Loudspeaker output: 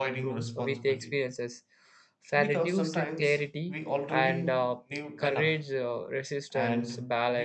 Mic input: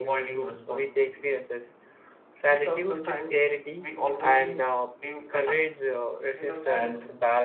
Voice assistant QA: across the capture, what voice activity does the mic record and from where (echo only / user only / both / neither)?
both